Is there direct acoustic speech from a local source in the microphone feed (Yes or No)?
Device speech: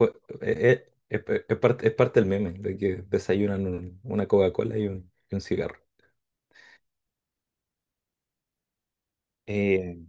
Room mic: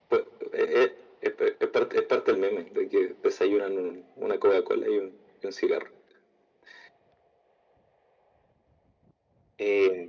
No